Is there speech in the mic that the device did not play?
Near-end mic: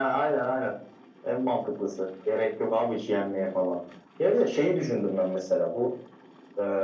No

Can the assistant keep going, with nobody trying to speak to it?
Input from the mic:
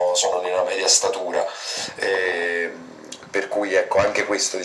Yes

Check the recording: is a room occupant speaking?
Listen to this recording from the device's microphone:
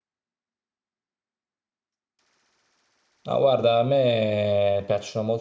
Yes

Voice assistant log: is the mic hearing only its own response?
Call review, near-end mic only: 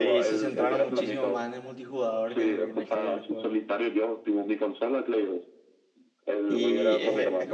No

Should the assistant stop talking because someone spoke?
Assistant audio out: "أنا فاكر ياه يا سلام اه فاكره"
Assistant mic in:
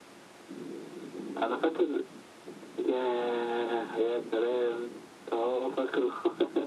No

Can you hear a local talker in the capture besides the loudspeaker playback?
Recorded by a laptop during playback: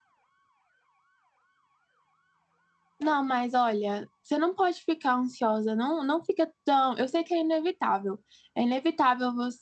Yes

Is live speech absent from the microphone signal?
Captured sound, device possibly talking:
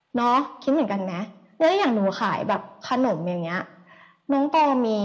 Yes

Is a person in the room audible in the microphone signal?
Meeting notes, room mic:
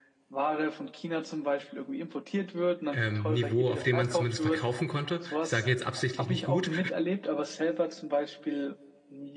Yes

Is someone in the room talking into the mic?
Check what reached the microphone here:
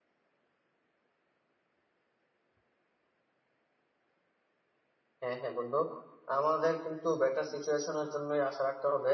Yes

